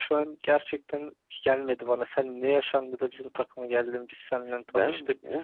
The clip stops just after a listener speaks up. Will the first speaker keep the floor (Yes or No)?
No